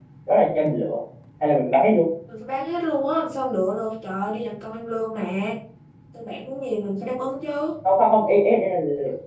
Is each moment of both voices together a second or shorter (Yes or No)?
Yes